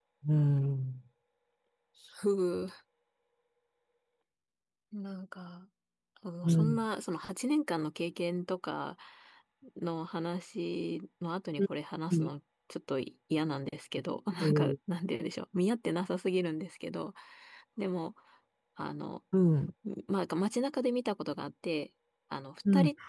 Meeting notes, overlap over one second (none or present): none